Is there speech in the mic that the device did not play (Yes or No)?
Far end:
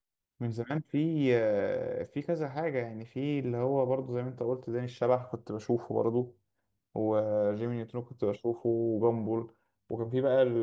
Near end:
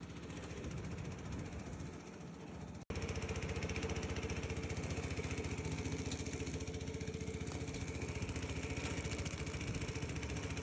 No